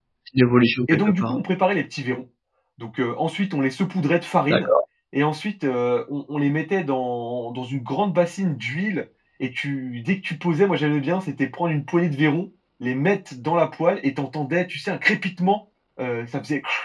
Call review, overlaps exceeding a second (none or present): none